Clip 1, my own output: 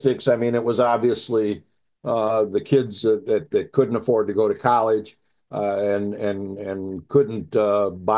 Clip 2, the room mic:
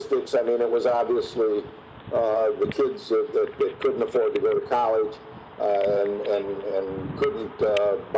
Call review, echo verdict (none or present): present